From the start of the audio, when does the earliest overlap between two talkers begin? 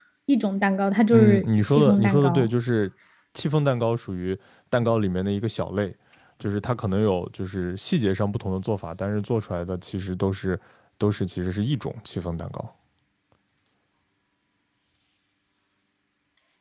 1.1 s

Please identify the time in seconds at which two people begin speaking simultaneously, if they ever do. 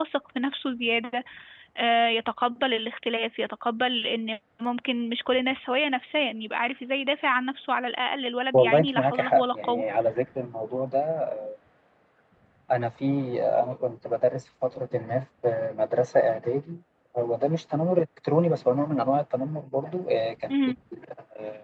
8.5 s

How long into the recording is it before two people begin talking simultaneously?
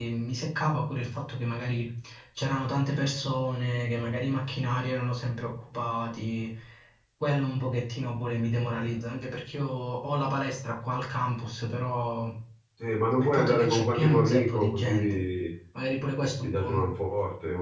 13.2 s

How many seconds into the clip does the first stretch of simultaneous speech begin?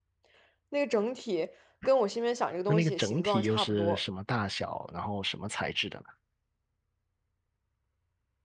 2.7 s

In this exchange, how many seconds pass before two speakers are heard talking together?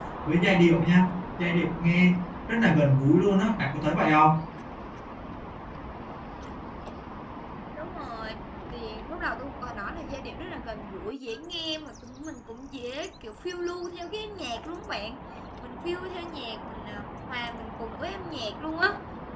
none

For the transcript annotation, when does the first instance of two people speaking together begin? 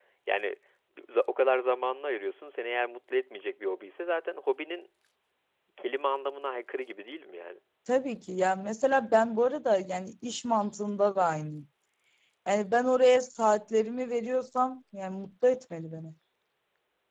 none

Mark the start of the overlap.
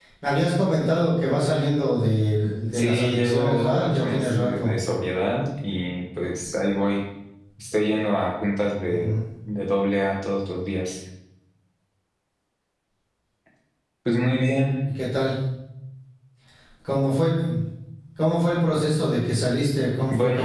2.7 s

